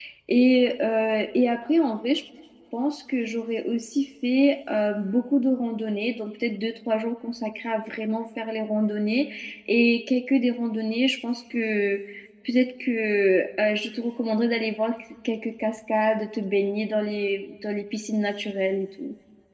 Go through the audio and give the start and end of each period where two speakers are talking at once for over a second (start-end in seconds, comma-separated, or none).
none